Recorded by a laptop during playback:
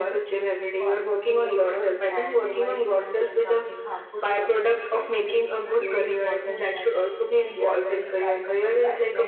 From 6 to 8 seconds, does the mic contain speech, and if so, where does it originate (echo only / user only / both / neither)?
both